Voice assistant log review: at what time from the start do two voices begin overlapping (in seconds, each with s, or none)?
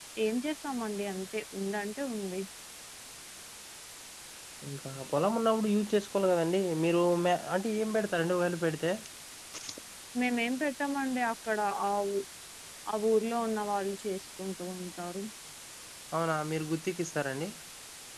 none